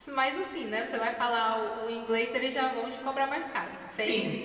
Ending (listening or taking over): taking over